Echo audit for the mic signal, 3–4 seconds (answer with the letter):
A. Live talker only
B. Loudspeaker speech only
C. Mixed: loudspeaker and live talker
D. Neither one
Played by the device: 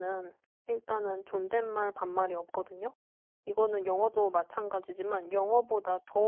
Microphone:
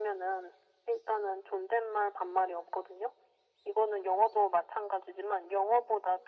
B